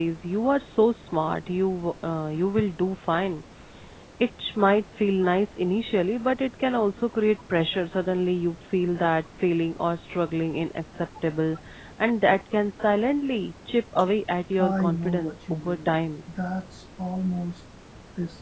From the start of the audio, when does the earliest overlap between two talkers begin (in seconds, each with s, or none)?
14.6 s